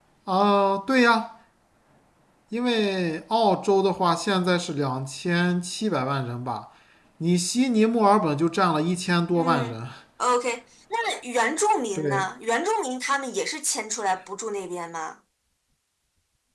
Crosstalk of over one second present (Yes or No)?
No